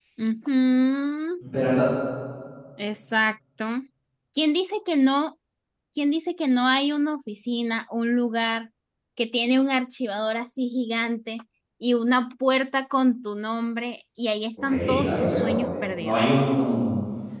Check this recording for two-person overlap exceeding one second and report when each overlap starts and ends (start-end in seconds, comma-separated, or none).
14.6-16.2